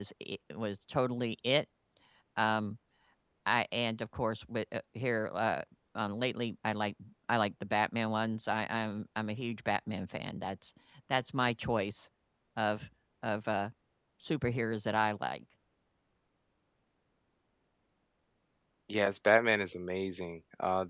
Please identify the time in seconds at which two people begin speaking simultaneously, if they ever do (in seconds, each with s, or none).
none